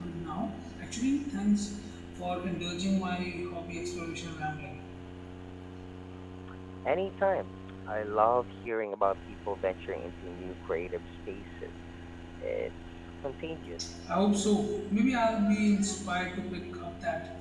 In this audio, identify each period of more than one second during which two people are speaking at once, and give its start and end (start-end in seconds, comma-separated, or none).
none